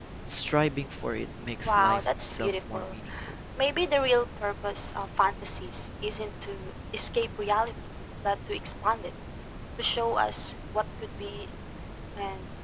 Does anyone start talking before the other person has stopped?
Yes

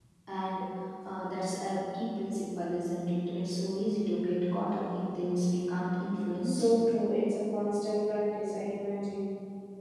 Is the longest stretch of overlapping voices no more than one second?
Yes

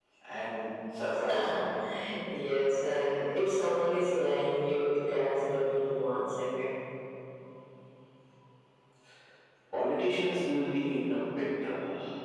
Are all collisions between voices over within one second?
Yes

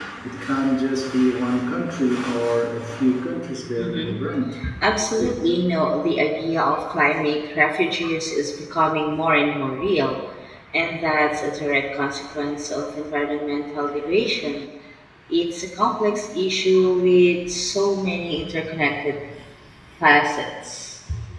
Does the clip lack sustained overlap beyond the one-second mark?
Yes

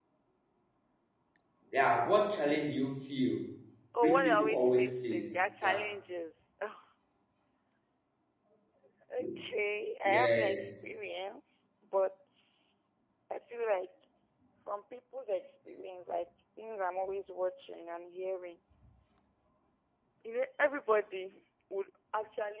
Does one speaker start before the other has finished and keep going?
Yes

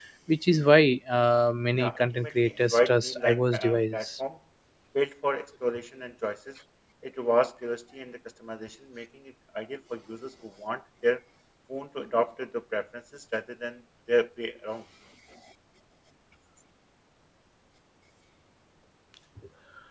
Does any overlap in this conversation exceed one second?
Yes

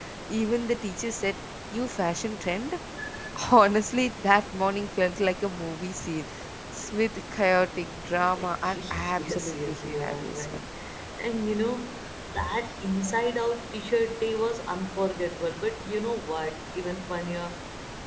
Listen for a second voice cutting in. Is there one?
Yes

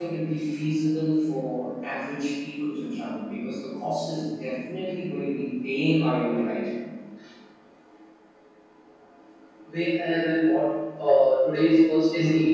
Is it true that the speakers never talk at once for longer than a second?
Yes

